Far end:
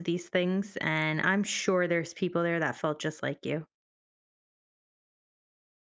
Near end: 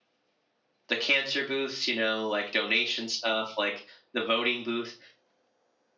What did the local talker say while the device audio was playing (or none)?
the cancer booths, you know, like donation stuff, like the voting booth.